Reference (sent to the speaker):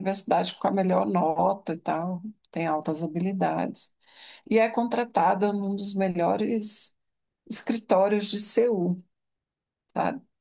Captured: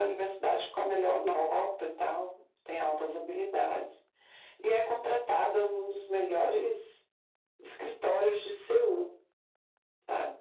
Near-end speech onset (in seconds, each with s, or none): none